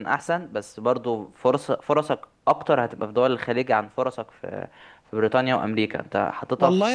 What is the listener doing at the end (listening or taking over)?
taking over